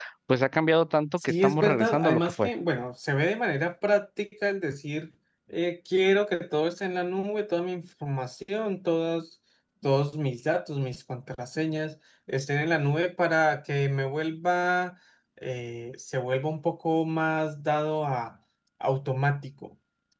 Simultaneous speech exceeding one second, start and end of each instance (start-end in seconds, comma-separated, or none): 1.2-2.5